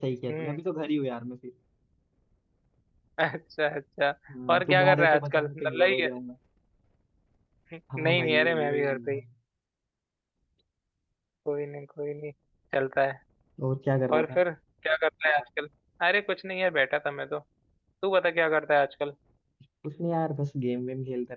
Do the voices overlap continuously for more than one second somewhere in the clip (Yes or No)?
Yes